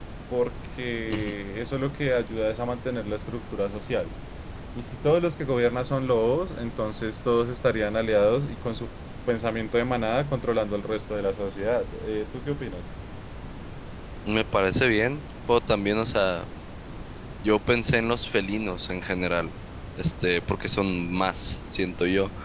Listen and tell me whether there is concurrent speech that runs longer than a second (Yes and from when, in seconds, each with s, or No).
No